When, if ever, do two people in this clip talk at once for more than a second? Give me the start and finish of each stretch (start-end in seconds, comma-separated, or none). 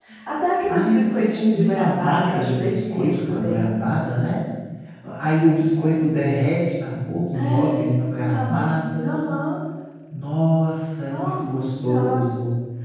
0.7-3.7, 7.3-9.3, 11.1-12.3